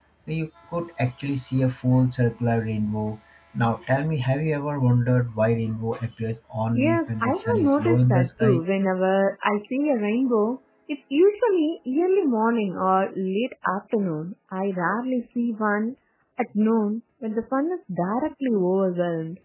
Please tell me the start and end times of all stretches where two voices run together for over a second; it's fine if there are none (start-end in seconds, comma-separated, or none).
6.8-8.6